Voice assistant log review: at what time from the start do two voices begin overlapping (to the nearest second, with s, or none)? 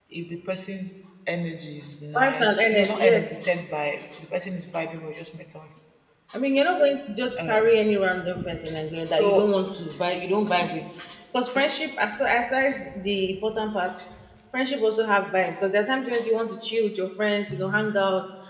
2 s